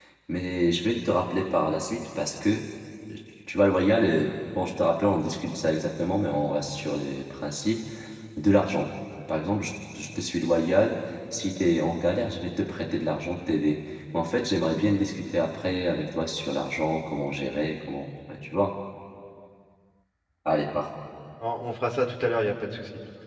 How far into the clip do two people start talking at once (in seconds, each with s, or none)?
none